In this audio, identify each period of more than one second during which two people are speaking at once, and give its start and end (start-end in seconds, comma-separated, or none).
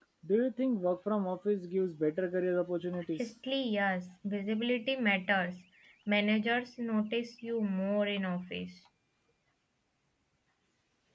none